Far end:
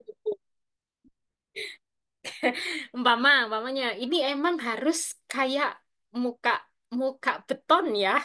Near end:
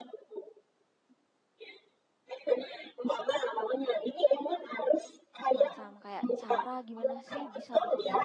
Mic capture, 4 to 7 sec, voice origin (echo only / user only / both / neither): both